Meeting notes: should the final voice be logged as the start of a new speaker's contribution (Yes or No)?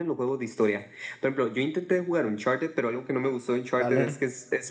No